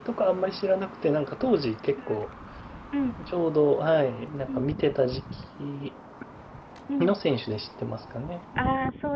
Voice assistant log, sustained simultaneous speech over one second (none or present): none